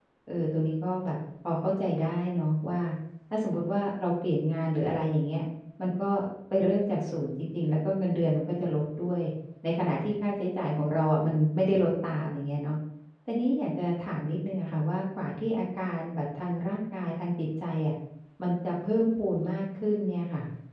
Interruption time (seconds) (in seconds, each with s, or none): none